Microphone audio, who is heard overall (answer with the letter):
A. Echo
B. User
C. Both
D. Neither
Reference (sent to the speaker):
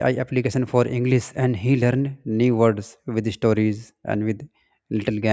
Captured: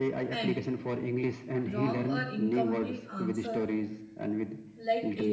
C